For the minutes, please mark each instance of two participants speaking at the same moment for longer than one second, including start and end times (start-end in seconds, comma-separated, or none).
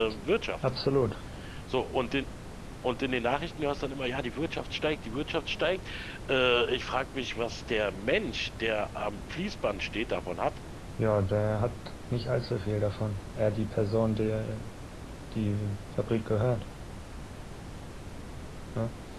none